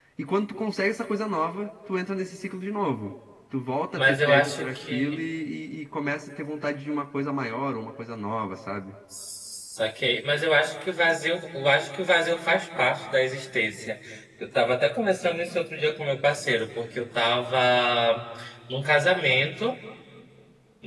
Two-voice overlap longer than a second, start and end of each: 4.0-5.2

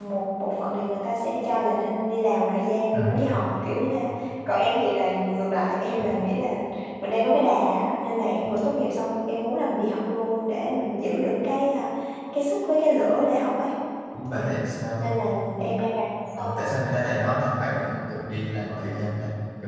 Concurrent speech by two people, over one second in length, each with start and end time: none

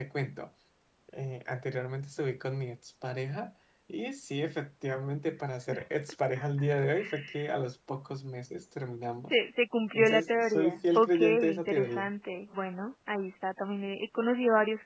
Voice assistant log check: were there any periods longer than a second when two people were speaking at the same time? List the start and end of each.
9.9-12.1

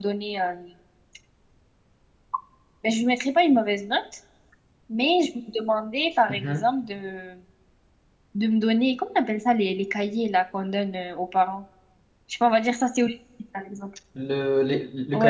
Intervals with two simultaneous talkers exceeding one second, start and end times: none

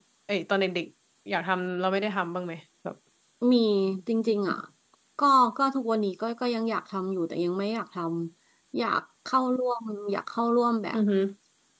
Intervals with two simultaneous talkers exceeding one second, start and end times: none

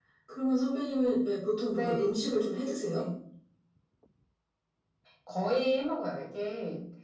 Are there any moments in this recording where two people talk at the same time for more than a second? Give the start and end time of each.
none

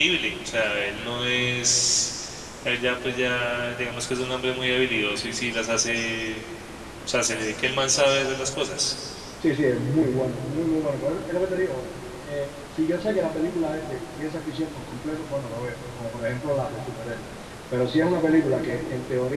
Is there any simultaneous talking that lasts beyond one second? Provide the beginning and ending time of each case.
none

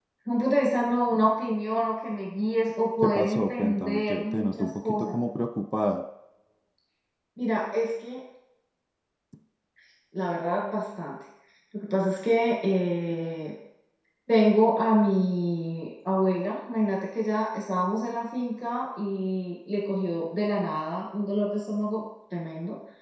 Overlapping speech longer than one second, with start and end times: 3.0-5.2

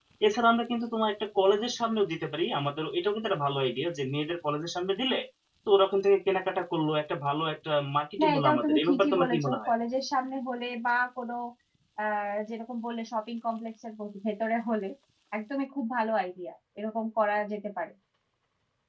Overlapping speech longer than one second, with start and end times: 8.2-9.7

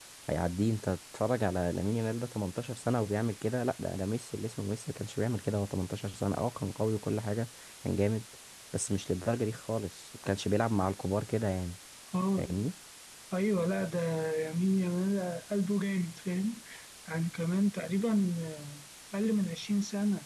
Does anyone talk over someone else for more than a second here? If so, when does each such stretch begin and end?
none

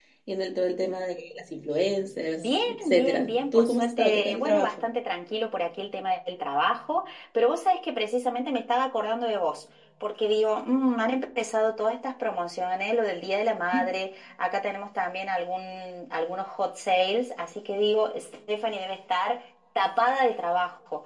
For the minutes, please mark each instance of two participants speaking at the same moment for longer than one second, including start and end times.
2.4-4.8

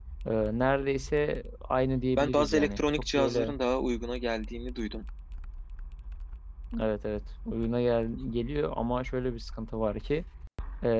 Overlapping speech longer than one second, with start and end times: 2.2-3.6

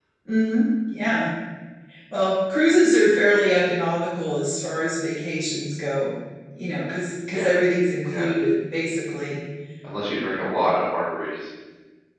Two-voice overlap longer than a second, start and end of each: none

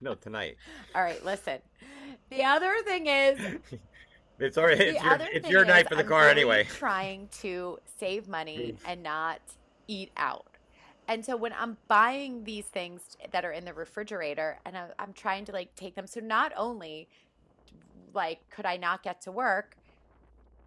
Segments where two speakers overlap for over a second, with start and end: 4.8-6.6

